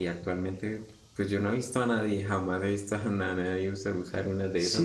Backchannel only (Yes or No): No